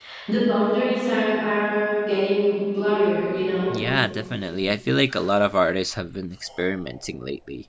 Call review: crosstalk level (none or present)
none